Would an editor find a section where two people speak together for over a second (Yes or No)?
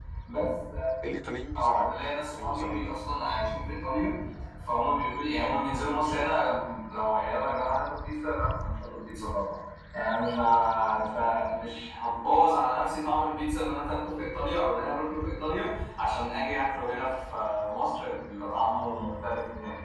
Yes